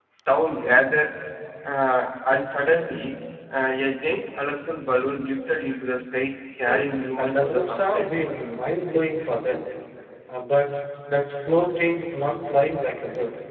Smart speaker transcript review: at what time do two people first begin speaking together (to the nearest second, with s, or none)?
7 s